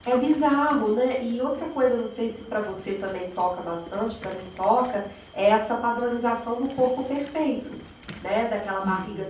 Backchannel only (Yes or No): Yes